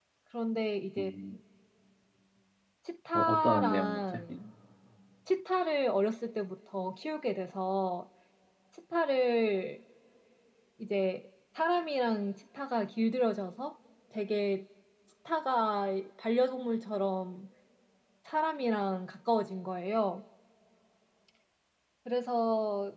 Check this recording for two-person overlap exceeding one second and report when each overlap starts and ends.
3.1-4.4

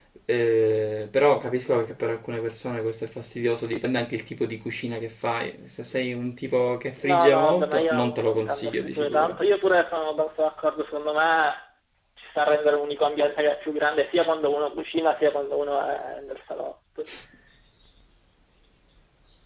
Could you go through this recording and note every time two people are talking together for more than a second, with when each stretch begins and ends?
7.1-9.4

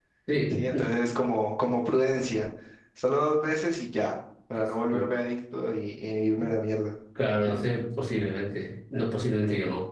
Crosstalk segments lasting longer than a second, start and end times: none

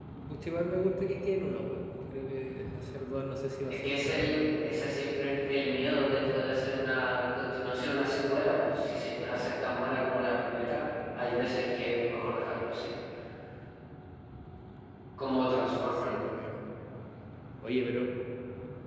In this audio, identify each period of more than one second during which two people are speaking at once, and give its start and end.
3.8-5.0

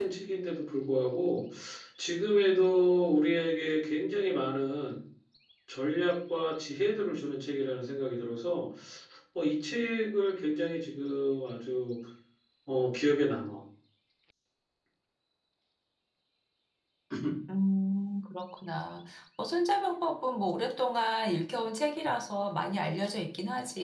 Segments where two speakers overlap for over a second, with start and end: none

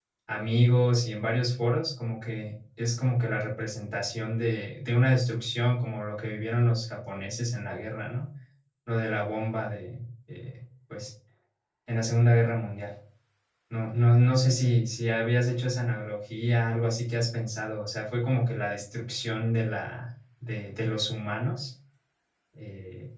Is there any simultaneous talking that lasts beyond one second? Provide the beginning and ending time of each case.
none

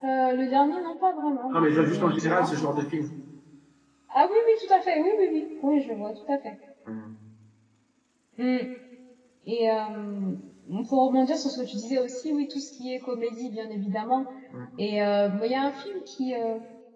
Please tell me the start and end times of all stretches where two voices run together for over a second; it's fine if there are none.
1.5-2.9

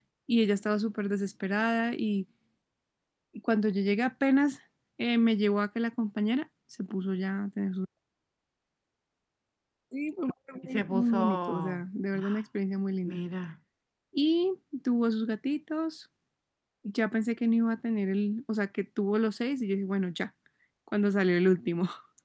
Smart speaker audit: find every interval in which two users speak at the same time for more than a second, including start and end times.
10.6-11.8

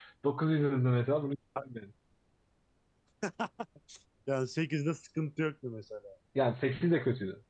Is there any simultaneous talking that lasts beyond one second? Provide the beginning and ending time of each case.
none

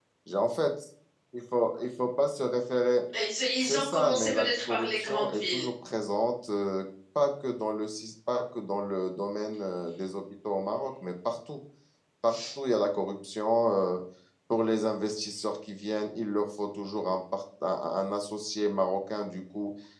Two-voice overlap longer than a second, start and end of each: 3.6-5.6

